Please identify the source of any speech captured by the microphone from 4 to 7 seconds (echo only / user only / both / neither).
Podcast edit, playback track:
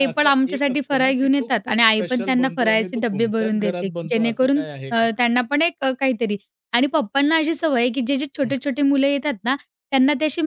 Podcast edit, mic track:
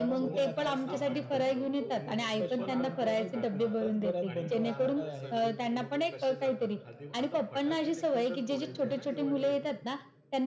both